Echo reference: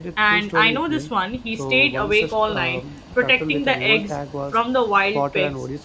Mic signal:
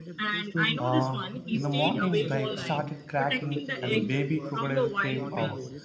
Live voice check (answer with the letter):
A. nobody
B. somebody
B